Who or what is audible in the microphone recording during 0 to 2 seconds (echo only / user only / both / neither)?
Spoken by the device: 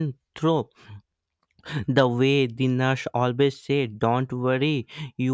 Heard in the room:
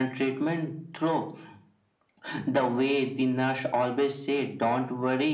echo only